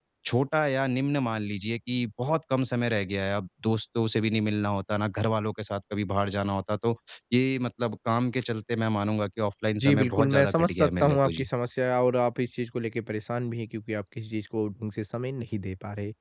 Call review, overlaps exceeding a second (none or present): present